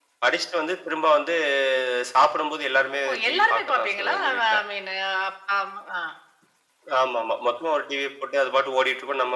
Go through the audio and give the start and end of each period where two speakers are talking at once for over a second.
3.1-4.6

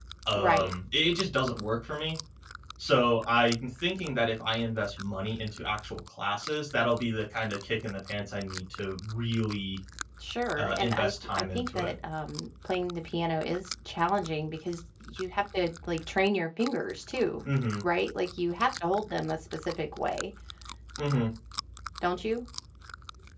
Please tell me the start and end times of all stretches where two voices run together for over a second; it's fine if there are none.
10.6-11.9

